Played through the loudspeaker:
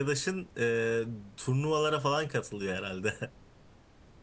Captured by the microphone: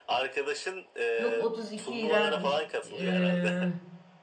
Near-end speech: present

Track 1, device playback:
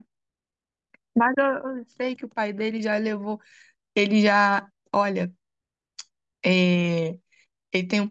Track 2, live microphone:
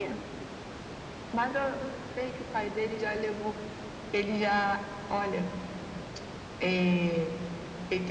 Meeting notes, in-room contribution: none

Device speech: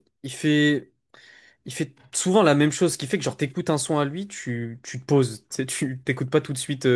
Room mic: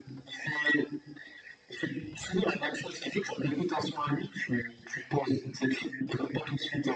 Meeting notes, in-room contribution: none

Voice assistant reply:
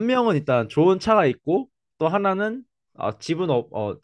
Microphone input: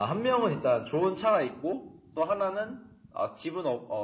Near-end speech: none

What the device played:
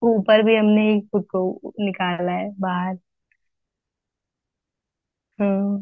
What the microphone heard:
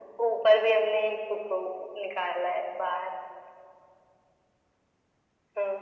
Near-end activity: none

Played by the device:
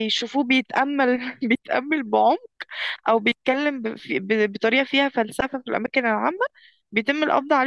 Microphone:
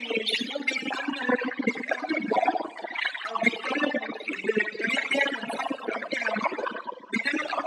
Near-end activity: none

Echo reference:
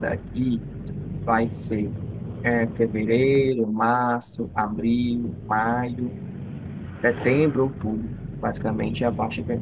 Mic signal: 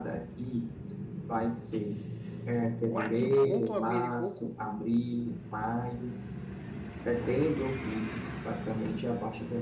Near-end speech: present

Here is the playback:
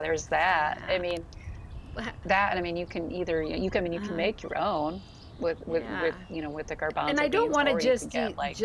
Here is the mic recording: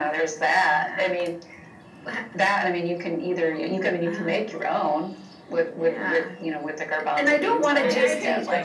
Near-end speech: present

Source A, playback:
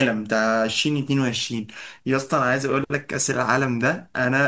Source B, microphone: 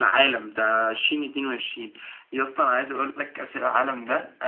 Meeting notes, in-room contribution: none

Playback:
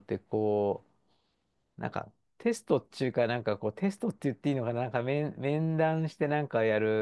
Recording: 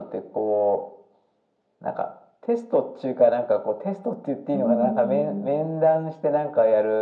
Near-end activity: present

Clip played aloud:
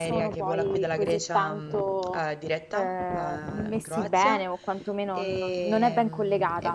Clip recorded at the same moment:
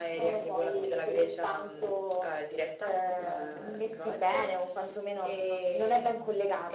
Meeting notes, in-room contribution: none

